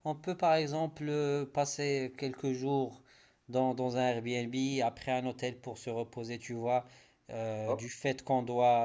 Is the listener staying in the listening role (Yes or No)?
Yes